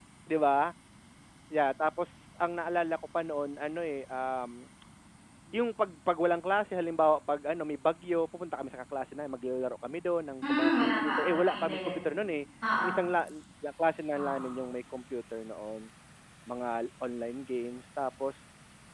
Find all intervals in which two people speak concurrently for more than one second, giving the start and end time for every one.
10.5-12.2

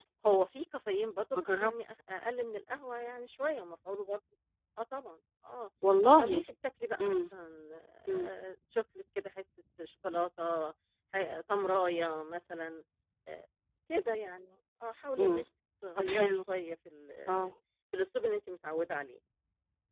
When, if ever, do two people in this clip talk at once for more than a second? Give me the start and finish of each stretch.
none

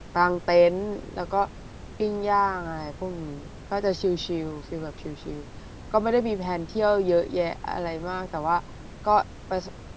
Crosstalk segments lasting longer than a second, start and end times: none

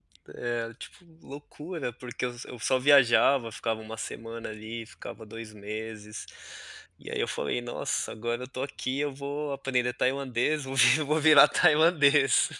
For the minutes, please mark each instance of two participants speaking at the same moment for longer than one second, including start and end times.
none

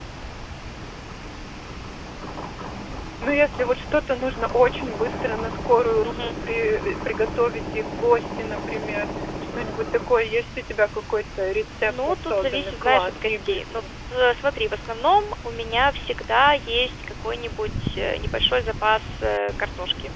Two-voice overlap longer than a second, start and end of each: 11.8-13.8

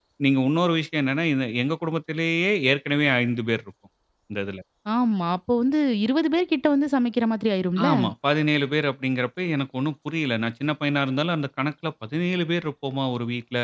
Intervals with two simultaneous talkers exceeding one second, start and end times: none

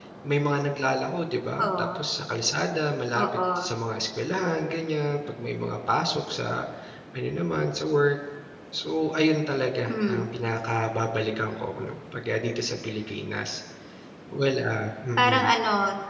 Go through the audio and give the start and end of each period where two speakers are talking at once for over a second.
none

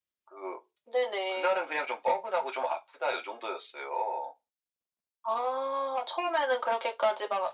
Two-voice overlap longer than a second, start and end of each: none

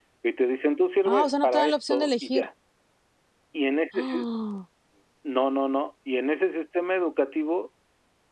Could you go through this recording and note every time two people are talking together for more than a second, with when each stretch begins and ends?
1.1-2.5

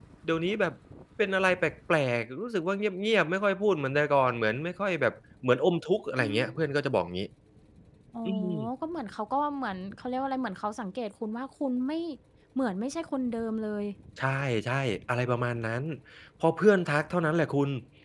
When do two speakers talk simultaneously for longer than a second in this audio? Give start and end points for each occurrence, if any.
none

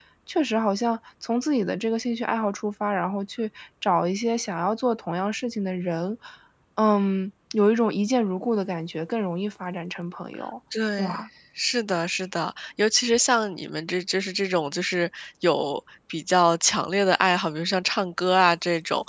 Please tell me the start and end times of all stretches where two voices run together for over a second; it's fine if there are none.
none

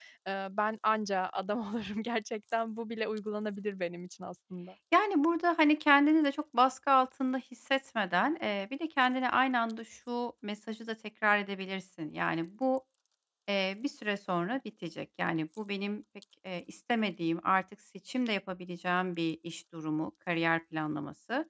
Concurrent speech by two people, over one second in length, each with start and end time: none

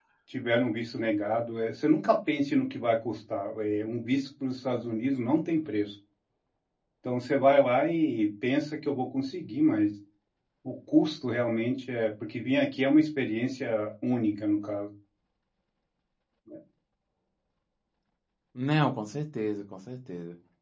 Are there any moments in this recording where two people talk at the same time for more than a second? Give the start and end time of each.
none

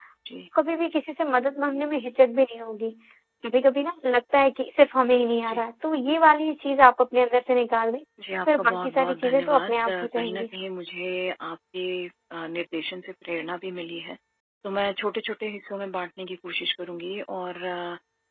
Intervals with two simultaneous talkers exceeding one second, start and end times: 8.5-10.4

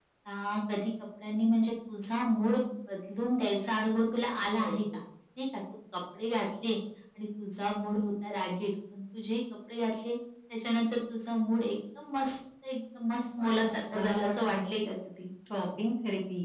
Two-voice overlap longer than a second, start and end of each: 13.4-14.8

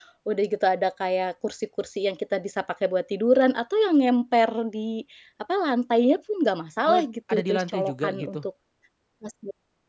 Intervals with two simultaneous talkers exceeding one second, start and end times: 6.9-8.4

